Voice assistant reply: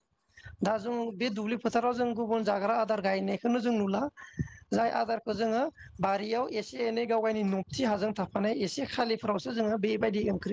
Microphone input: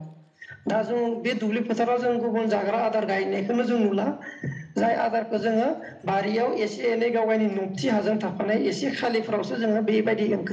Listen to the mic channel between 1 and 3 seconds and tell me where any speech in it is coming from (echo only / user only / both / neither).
echo only